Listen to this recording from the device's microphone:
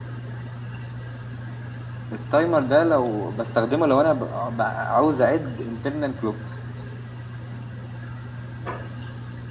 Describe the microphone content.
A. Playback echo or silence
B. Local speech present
B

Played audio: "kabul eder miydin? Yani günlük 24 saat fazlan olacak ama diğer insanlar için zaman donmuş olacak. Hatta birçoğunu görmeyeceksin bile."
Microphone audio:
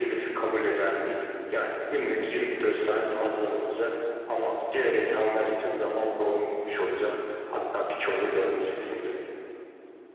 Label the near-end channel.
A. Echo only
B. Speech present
A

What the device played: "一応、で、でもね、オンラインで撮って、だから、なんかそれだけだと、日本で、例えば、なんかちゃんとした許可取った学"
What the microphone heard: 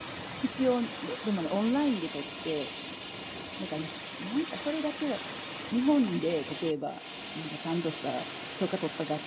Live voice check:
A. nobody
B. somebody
A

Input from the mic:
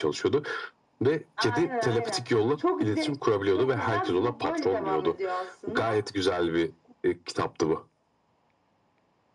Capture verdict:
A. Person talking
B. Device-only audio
B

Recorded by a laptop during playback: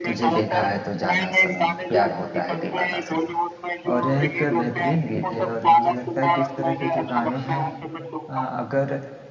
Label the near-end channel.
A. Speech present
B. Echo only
A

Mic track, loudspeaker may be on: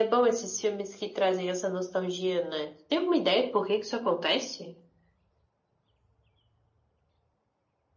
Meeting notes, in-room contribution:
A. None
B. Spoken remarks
A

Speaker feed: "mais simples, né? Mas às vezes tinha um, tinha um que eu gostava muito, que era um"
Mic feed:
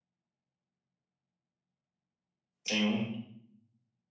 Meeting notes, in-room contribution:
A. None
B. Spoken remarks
B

